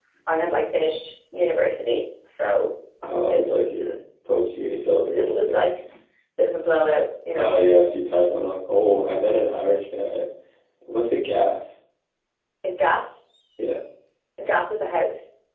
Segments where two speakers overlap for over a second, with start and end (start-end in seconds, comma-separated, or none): none